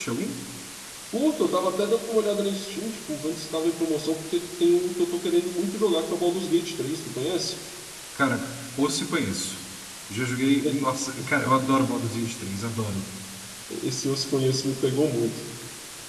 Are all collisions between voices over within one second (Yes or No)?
Yes